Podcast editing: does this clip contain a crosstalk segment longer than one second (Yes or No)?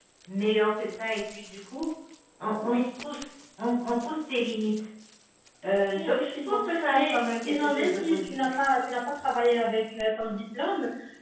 Yes